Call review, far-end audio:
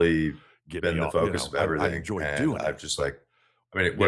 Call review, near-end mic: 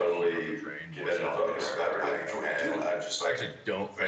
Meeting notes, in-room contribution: present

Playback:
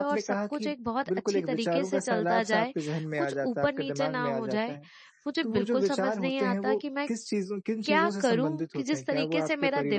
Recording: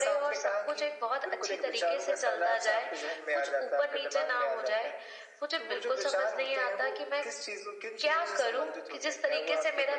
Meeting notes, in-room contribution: none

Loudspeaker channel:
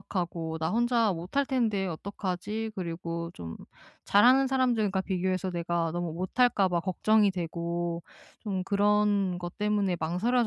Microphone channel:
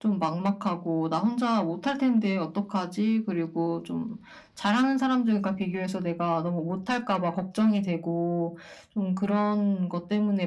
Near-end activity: none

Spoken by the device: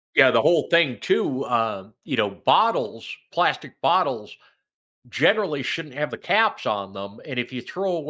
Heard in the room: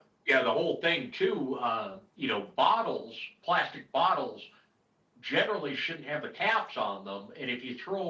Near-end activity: none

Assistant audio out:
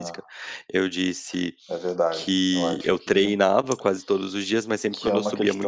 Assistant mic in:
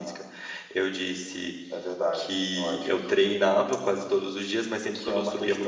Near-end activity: none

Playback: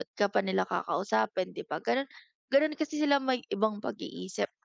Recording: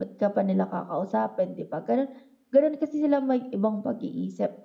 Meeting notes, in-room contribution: none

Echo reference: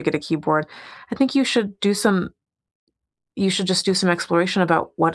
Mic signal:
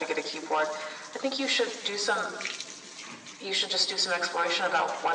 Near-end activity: none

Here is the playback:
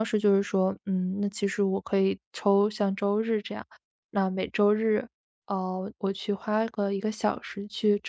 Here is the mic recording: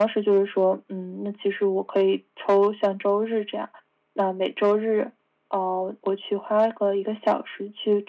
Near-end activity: none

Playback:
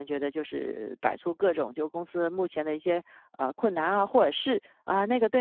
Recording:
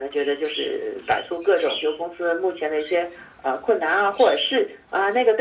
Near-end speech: none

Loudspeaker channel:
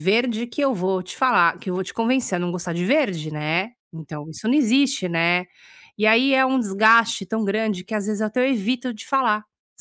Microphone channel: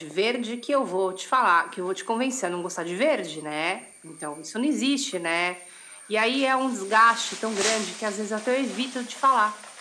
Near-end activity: none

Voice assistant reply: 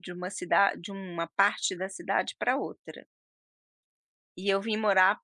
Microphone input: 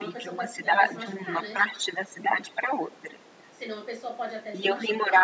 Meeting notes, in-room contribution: present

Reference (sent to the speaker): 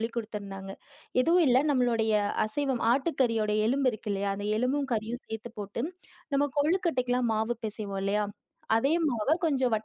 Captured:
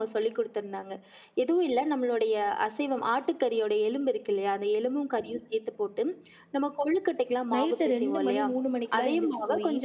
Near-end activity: present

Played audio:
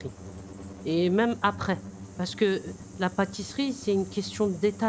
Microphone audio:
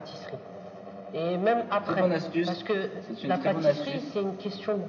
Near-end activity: present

